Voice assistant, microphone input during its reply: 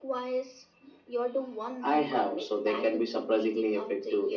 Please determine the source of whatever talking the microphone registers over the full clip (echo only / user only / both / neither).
echo only